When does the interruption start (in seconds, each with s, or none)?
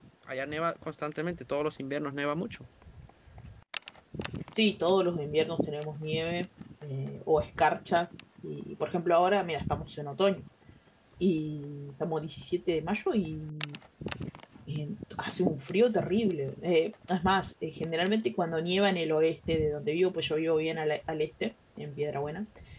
none